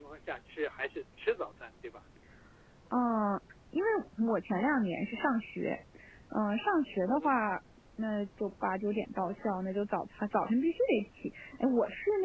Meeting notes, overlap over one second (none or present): none